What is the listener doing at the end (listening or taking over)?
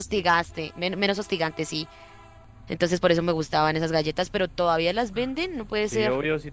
taking over